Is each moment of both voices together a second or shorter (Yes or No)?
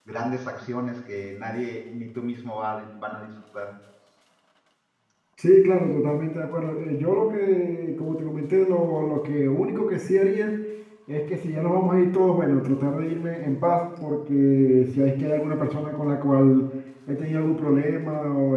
Yes